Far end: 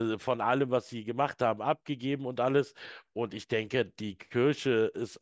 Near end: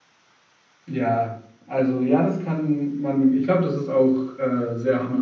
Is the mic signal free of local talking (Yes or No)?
No